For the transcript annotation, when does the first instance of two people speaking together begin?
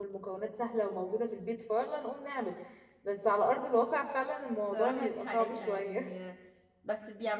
4.6 s

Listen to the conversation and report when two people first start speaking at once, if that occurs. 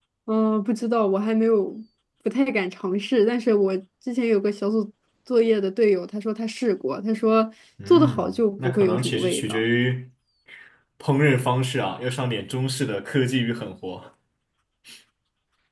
7.8 s

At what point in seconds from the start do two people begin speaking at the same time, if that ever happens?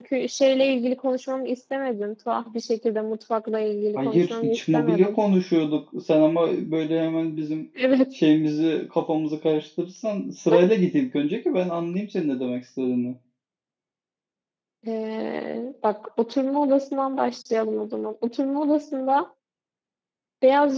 4.0 s

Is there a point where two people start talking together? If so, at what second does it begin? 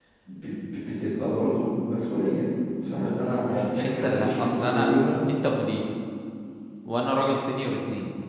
3.2 s

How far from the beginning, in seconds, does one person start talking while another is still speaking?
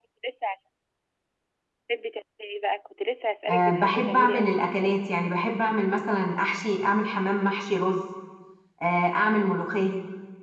3.5 s

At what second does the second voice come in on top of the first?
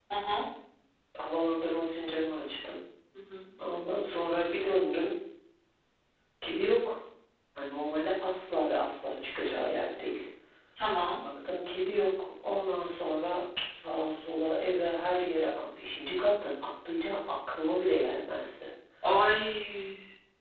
none

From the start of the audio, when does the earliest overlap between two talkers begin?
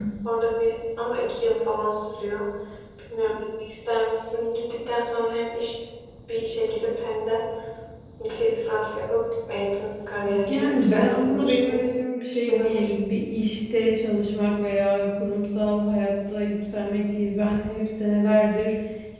10.5 s

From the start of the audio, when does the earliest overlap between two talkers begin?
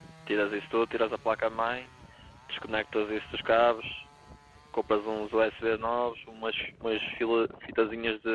none

